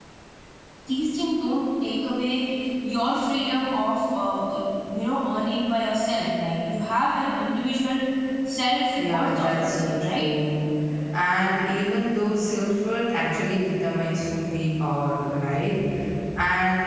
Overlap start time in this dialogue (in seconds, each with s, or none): 9.0 s